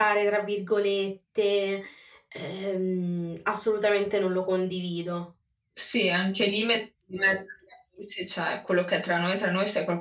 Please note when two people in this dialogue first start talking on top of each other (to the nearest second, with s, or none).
none